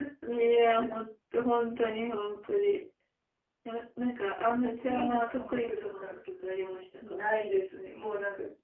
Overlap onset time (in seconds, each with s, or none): 4.6 s